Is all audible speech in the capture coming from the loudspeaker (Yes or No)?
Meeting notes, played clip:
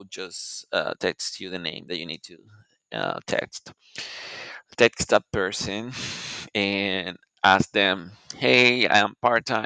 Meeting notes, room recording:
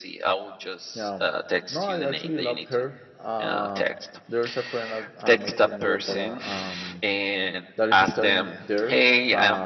No